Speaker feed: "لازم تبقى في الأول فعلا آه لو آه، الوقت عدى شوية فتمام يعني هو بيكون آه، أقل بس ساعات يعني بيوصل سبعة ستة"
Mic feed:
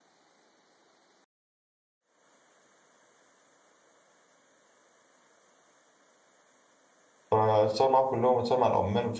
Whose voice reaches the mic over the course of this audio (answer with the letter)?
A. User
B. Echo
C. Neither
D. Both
A